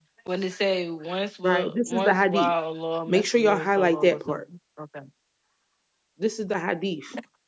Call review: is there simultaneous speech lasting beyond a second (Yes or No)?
Yes